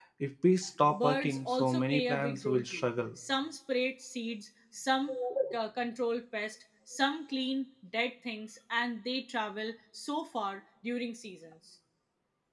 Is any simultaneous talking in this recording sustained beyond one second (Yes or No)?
Yes